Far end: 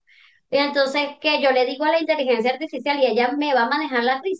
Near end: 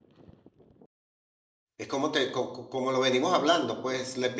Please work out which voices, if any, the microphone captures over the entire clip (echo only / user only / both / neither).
user only